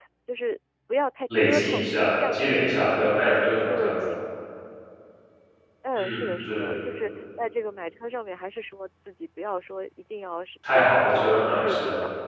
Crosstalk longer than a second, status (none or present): present